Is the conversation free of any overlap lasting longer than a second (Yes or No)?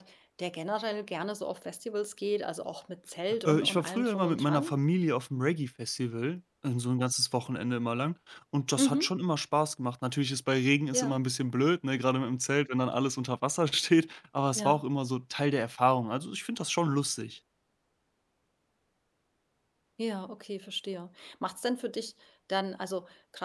No